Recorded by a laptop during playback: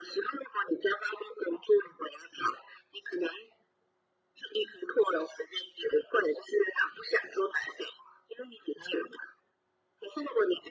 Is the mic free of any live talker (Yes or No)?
Yes